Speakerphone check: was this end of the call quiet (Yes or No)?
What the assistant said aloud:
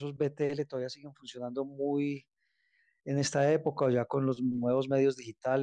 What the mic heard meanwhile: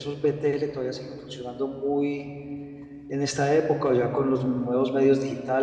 Yes